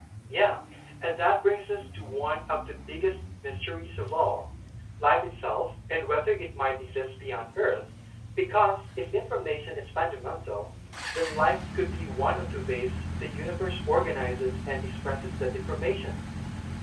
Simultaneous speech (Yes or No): No